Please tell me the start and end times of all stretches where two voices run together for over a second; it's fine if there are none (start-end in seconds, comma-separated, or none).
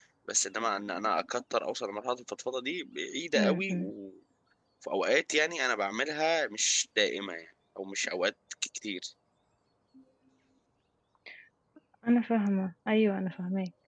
none